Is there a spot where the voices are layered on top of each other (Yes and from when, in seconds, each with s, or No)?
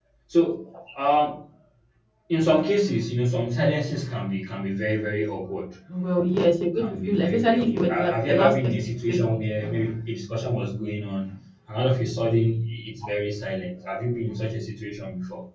Yes, from 6.8 s